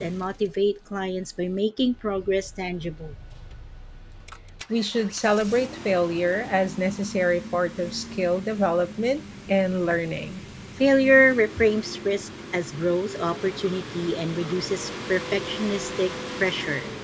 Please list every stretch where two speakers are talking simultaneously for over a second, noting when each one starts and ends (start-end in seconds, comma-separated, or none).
none